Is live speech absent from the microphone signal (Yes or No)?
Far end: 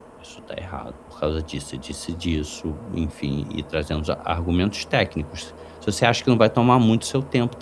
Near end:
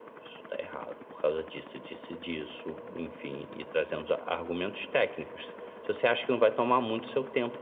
Yes